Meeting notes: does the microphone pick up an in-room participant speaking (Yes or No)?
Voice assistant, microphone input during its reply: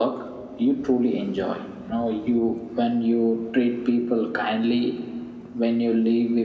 No